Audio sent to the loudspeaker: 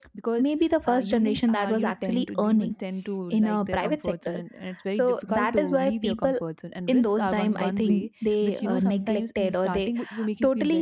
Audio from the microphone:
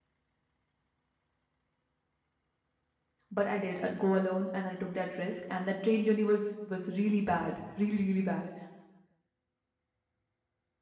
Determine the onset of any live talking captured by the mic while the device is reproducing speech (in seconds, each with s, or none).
3.3 s